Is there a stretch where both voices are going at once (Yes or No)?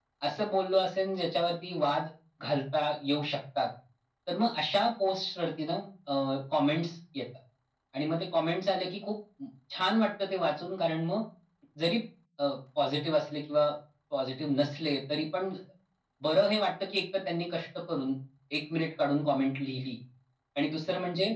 No